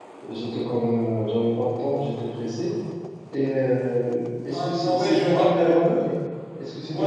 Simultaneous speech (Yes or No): Yes